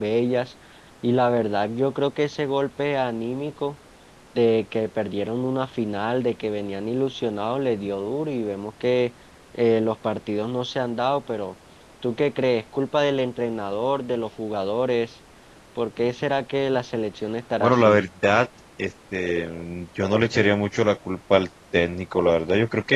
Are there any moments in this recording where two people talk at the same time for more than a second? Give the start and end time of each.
none

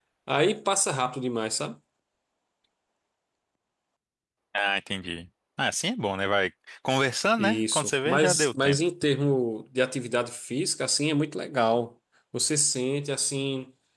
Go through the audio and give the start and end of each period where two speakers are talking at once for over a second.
7.4-8.8

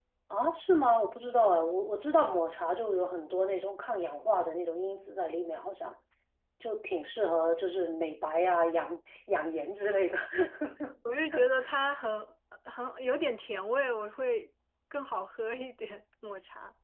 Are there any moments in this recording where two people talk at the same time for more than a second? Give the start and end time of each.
none

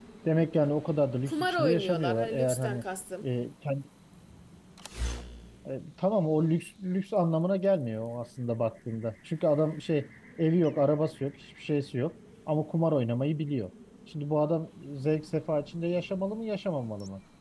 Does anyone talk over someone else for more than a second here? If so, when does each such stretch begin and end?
1.3-2.8

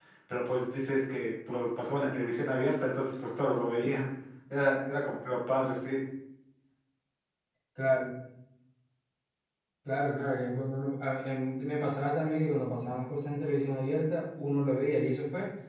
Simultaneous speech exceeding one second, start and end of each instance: none

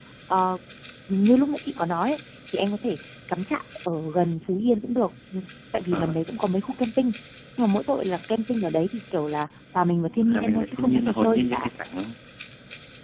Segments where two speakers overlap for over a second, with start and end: 10.2-11.7

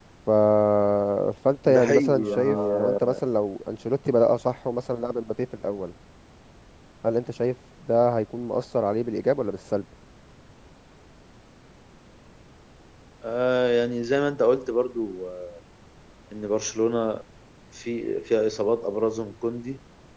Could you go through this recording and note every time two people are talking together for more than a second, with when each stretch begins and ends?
1.7-3.1

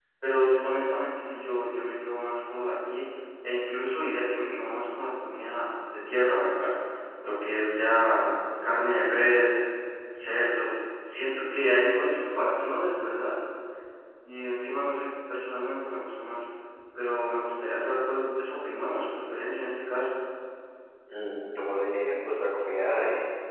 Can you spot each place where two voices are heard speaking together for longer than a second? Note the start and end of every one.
none

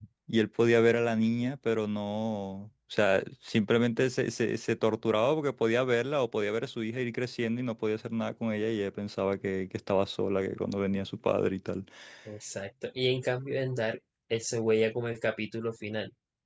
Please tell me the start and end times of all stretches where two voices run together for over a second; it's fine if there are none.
none

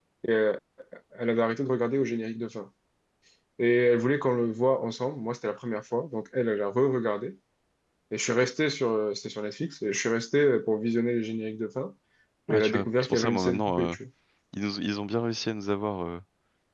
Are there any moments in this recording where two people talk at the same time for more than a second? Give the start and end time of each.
12.5-13.9

